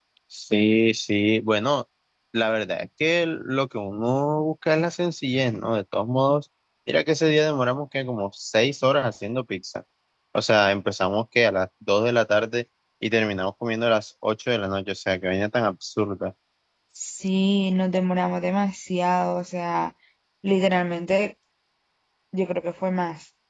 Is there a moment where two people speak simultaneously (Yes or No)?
No